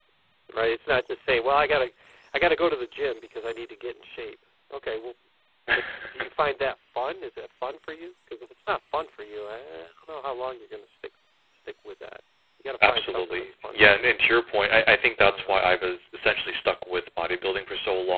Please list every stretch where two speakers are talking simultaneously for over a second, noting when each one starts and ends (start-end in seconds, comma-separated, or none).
12.9-14.2